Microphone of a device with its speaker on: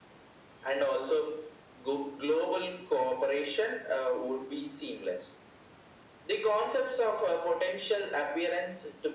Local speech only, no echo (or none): none